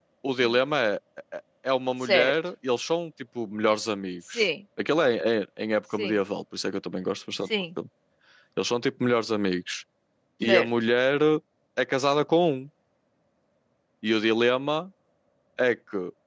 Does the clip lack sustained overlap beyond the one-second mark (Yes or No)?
Yes